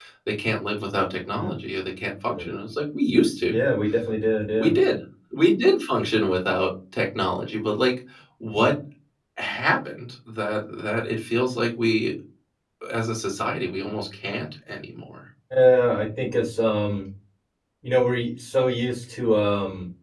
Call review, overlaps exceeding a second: none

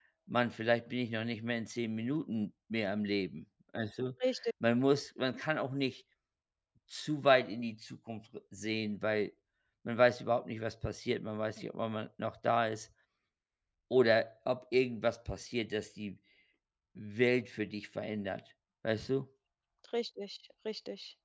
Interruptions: none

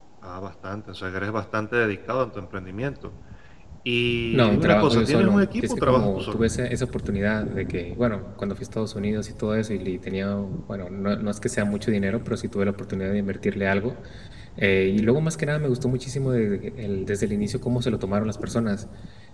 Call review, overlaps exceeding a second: present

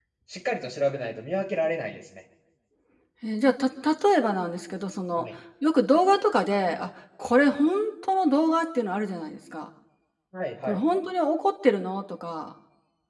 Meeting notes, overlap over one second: none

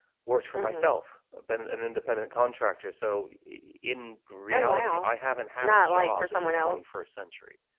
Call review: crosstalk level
present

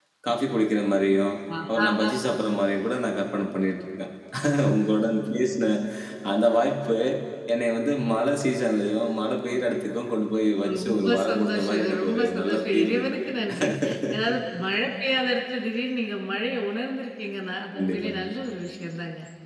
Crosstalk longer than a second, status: present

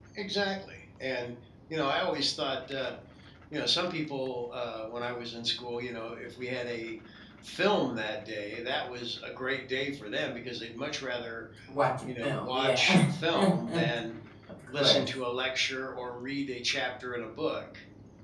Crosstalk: present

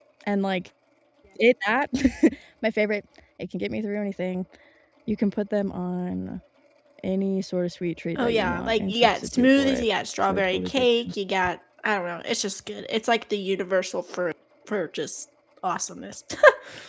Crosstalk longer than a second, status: present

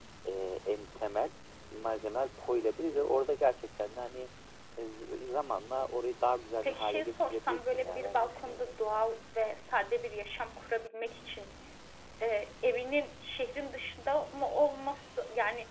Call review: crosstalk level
present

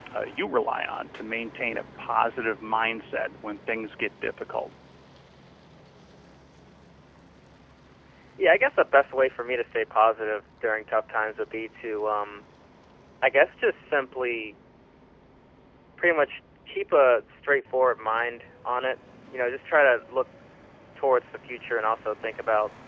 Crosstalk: none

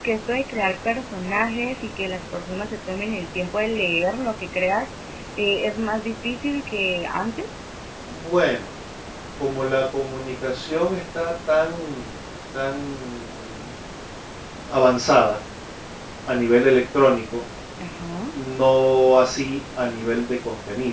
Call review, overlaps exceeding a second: none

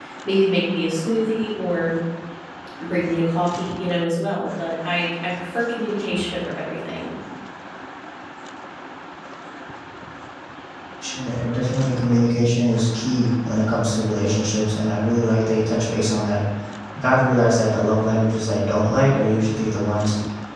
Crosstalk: none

